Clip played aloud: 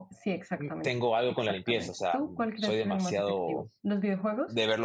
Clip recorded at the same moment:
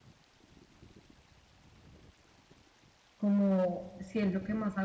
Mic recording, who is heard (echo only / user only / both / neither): user only